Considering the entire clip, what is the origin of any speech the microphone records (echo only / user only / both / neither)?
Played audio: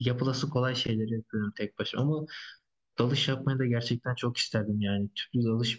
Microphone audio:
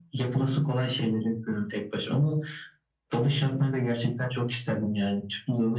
echo only